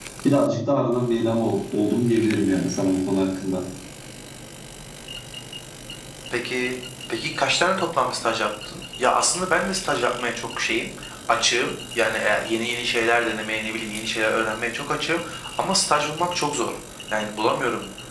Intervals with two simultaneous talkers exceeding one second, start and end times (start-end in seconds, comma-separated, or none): none